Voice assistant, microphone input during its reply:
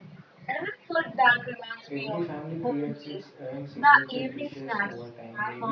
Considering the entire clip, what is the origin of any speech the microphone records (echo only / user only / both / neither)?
both